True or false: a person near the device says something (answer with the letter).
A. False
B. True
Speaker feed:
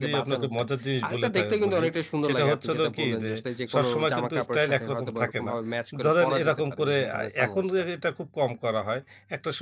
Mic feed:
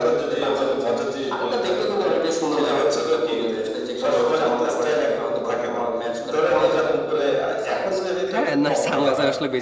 B